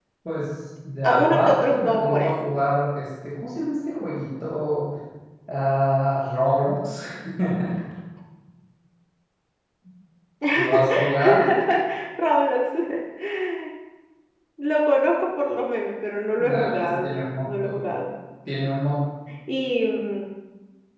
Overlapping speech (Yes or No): Yes